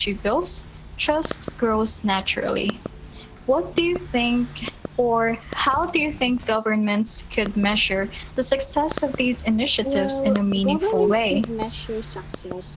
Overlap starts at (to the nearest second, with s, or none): 10 s